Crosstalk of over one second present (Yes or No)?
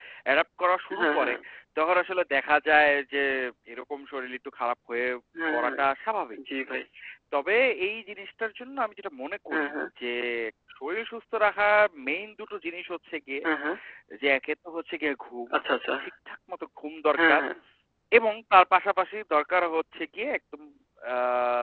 No